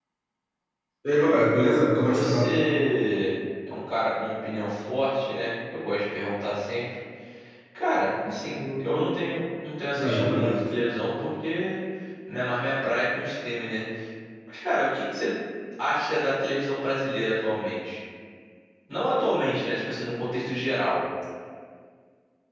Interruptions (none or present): present